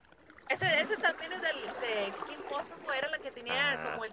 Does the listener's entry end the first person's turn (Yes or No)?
No